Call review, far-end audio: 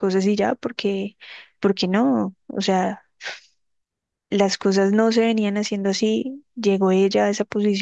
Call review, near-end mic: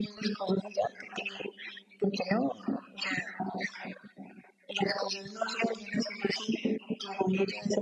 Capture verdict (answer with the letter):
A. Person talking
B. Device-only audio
B